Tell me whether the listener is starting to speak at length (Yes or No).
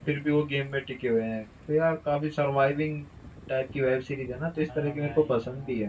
Yes